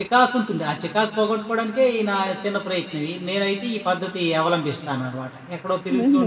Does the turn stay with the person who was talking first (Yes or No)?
No